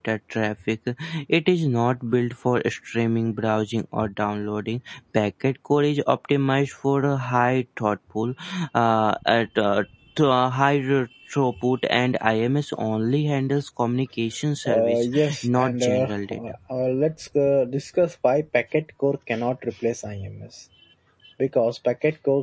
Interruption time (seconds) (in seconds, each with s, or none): 14.6 s